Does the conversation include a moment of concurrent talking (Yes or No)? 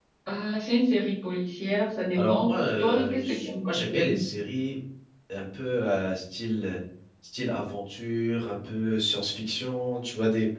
Yes